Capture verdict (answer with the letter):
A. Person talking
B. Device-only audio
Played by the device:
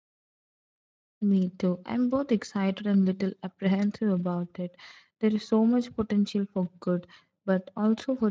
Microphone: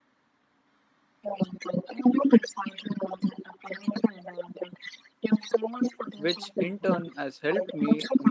A